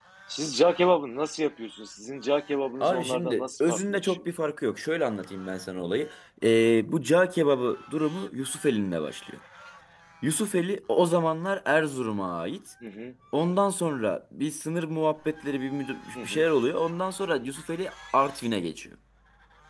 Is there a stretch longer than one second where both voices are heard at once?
Yes, from 2.8 s

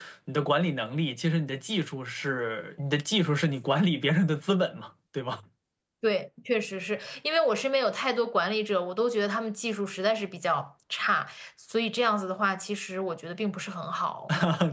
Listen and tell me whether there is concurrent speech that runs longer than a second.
No

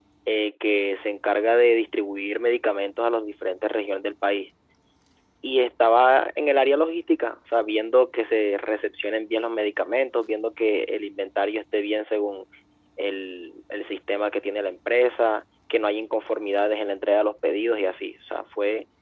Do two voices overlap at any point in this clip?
No

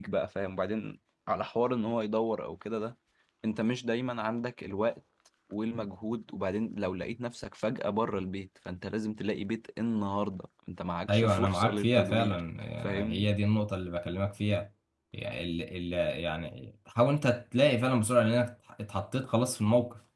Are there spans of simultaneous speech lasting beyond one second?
Yes, from 11.1 s

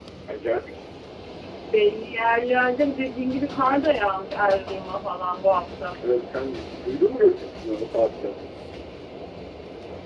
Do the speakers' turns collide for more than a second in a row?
No

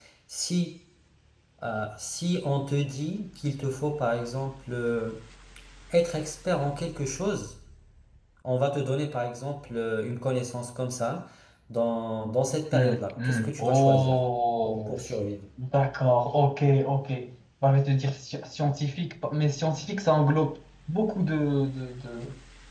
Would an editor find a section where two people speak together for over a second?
Yes, from 12.7 s

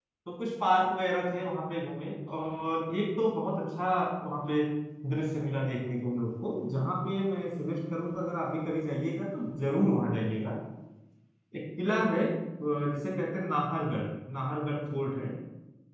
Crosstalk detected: No

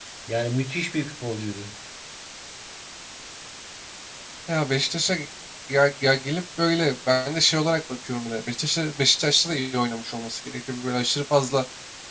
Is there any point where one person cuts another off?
No

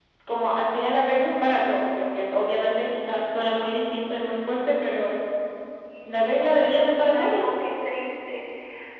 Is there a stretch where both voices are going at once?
Yes, from 6.1 s

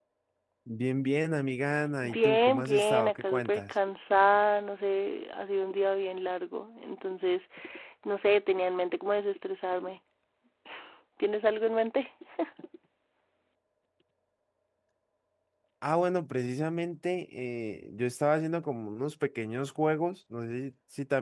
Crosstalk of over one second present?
Yes, from 2.0 s

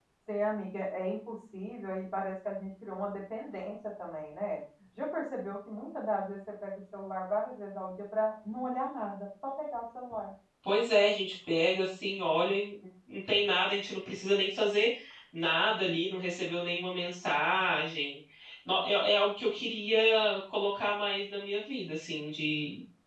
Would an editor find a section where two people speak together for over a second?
No

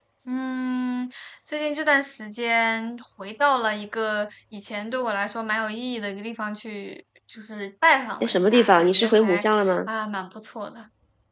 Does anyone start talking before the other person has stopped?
Yes, from 8.2 s

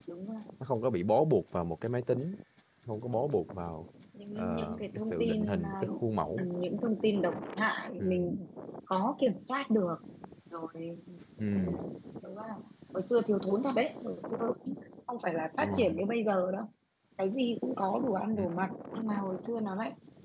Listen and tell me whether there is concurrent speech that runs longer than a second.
Yes, from 4.4 s

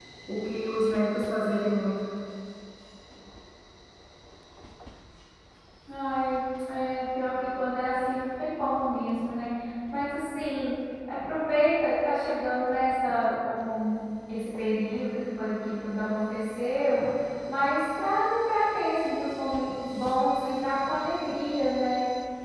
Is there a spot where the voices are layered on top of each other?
No

